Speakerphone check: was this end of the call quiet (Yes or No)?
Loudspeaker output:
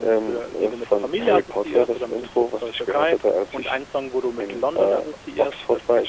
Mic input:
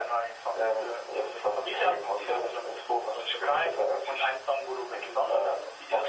Yes